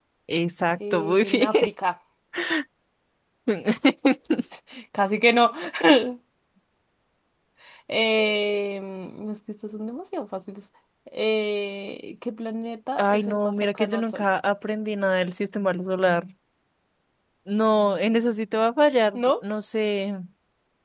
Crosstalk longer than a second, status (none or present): present